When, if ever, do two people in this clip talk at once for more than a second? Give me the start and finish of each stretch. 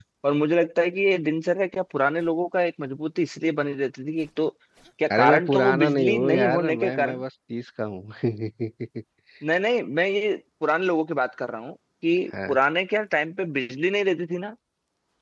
5.2-7.2

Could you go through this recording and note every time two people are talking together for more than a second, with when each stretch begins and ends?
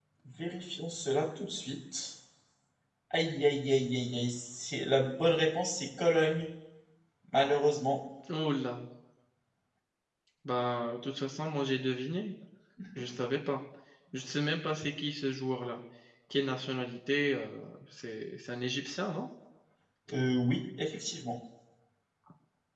none

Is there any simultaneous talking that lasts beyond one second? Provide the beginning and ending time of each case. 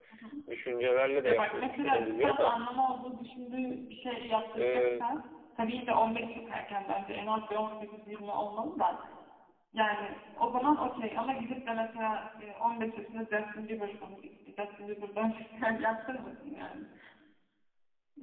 1.2-2.6

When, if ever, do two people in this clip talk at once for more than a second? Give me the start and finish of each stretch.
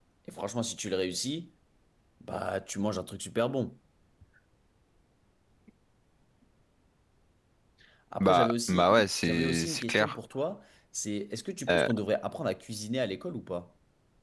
8.2-10.2

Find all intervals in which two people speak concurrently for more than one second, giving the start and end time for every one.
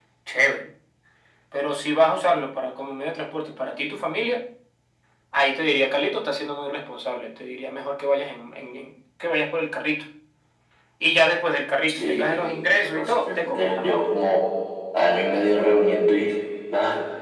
12.0-14.0

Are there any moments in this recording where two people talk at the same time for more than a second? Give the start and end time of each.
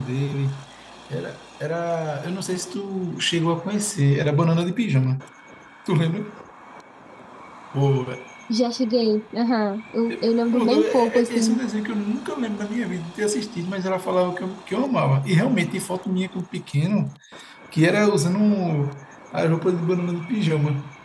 10.1-11.6

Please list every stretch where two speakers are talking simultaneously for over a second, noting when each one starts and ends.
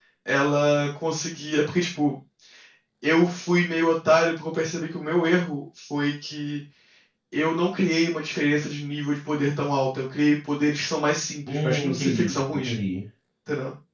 11.5-12.7

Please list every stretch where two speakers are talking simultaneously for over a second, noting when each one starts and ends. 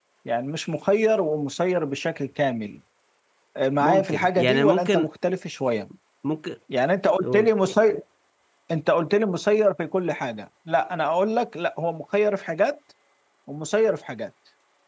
3.8-5.1

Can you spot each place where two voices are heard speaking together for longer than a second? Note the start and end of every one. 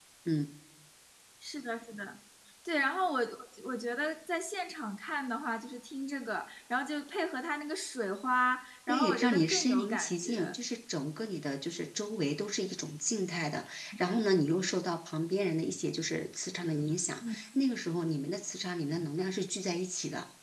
8.9-10.5

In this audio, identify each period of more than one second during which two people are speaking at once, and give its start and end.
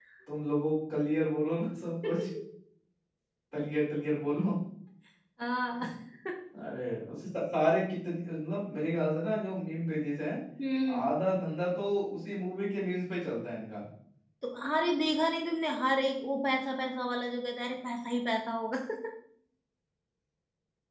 none

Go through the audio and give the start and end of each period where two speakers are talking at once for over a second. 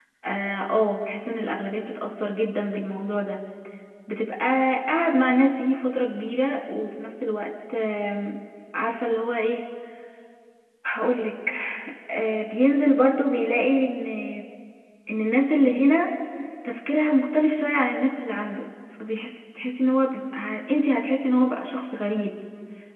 none

